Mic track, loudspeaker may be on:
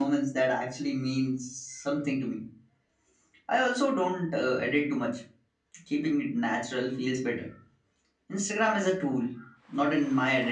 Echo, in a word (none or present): none